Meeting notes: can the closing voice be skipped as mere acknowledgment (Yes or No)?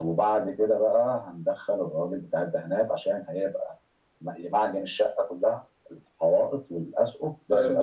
No